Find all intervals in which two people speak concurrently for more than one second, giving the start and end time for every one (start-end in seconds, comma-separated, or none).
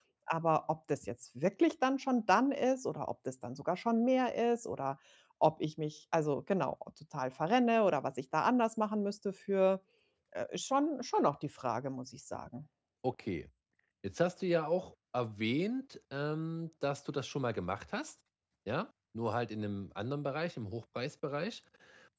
none